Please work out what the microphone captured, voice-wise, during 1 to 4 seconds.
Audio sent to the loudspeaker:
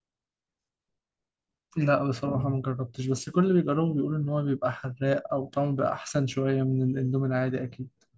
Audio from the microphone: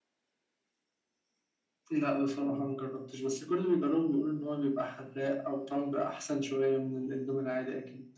echo only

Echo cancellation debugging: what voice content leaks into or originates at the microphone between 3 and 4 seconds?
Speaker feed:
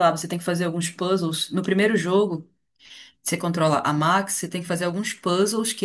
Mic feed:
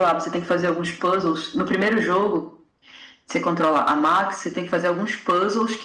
echo only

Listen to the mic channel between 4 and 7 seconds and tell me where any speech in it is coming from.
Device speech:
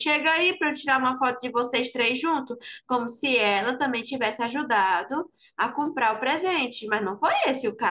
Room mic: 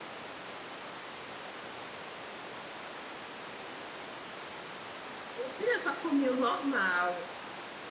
user only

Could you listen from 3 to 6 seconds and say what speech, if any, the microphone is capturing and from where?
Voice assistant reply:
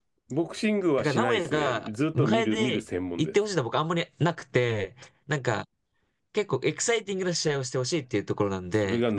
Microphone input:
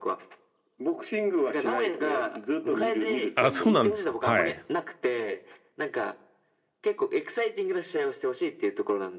both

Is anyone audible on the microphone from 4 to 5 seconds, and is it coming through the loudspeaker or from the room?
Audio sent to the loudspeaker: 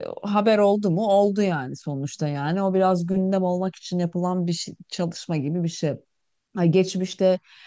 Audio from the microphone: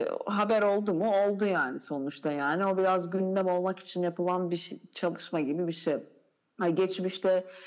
echo only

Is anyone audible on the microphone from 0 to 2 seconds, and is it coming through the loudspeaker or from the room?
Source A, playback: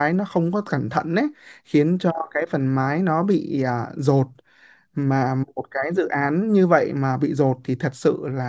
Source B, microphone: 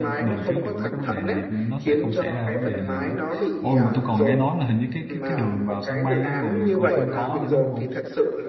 both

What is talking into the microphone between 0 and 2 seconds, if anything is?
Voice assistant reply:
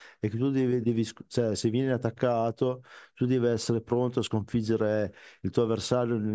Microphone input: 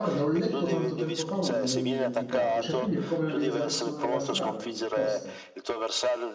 both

